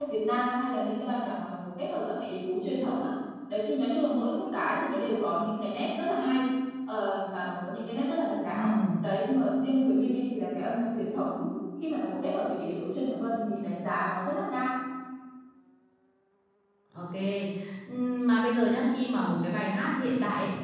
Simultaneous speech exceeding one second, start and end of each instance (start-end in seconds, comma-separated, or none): none